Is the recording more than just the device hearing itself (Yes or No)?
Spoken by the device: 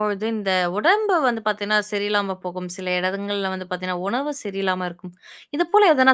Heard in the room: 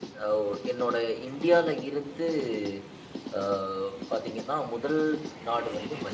Yes